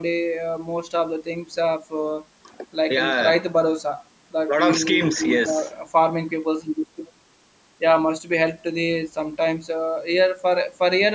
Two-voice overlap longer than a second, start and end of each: 4.5-5.7

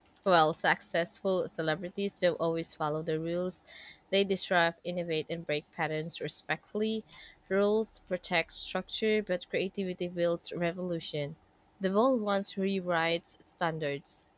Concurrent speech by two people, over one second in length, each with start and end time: none

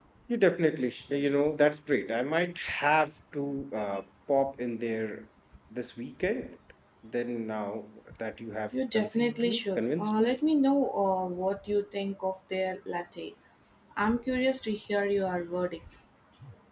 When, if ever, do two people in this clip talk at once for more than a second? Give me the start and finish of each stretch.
8.9-10.3

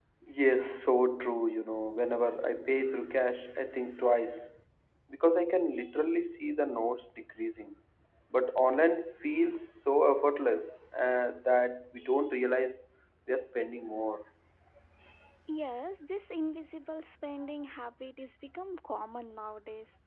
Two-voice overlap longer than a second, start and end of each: none

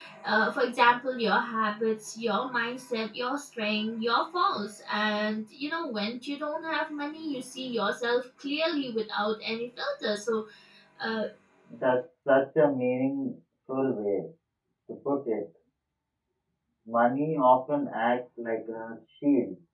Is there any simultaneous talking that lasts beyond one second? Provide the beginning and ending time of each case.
none

